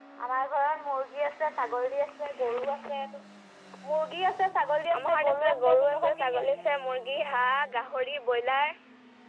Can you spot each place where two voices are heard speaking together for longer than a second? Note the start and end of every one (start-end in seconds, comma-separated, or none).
5.0-6.6